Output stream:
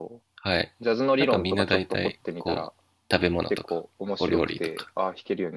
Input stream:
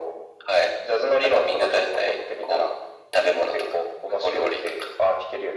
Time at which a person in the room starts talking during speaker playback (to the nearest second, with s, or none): none